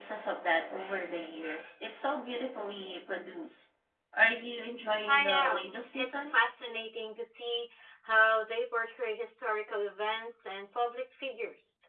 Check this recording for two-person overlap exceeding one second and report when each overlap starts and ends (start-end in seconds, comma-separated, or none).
5.1-6.4